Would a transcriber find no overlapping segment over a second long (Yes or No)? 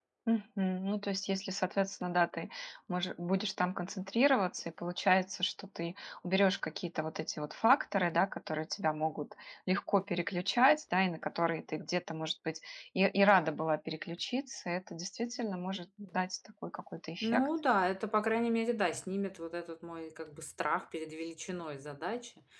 Yes